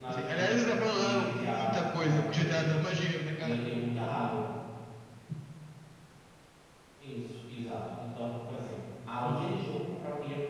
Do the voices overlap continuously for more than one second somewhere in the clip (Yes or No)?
Yes